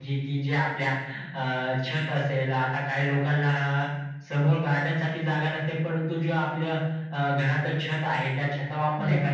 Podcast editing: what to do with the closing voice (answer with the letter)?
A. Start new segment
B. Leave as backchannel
B